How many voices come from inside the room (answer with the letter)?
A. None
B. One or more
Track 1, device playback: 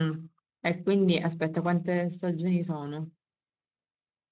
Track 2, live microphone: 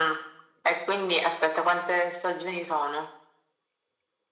A